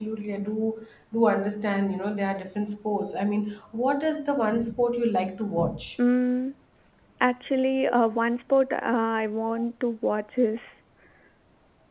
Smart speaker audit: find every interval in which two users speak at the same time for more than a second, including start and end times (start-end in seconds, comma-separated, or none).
none